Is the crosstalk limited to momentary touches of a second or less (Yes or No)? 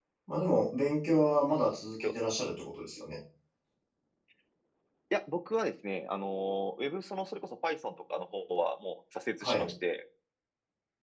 Yes